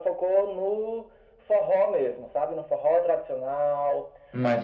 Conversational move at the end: listening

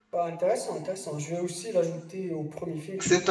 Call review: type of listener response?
taking over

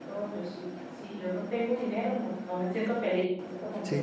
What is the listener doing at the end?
taking over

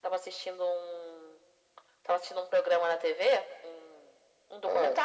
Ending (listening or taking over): listening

